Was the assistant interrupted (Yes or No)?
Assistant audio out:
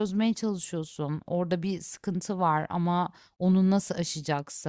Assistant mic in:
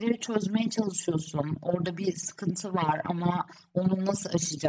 No